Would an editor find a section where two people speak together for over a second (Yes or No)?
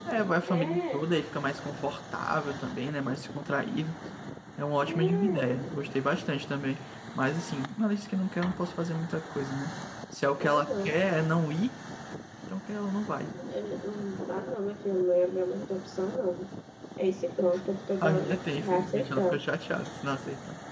Yes